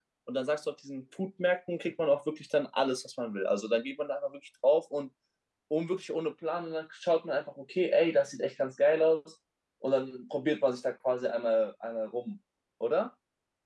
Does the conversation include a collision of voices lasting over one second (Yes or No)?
No